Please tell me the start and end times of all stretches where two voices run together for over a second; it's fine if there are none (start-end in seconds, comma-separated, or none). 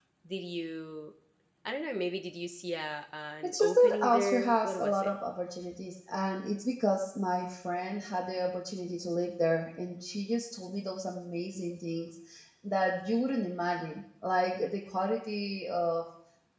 3.4-5.1